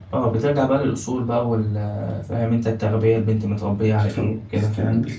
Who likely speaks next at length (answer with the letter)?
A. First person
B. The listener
B